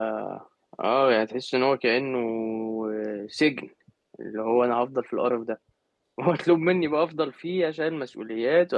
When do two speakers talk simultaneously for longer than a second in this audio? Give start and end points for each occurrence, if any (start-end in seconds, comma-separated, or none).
none